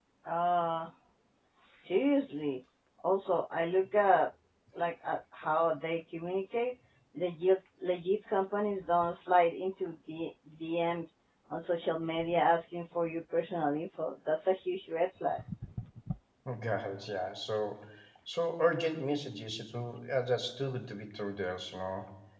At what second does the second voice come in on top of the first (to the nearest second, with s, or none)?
none